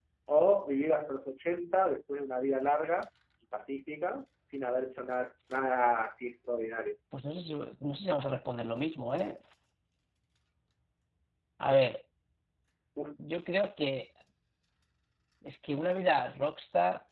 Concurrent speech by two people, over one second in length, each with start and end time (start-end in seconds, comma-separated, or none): none